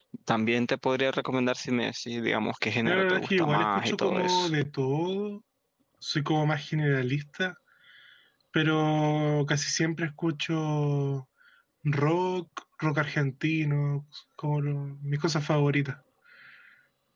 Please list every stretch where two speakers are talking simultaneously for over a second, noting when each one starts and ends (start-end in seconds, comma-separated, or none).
2.8-4.5